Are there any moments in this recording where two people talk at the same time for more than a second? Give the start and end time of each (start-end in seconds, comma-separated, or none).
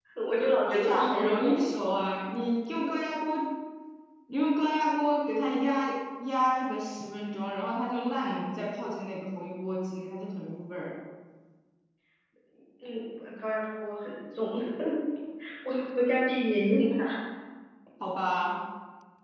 0.7-2.0